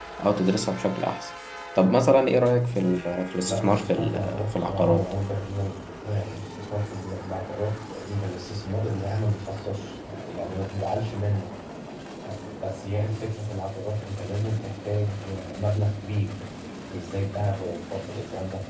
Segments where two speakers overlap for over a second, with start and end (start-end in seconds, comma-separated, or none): 3.5-5.1